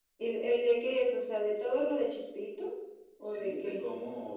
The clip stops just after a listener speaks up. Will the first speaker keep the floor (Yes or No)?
No